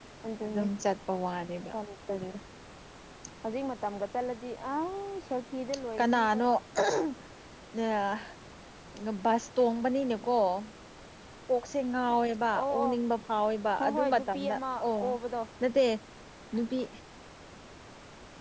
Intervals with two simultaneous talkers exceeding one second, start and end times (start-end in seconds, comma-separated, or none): 13.8-15.0